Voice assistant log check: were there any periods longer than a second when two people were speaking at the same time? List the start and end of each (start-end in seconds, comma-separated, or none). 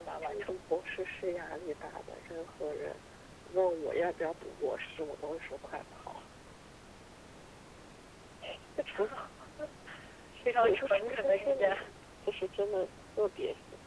10.6-11.9